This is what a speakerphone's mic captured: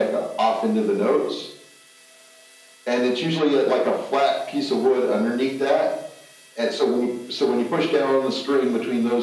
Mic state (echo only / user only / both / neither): echo only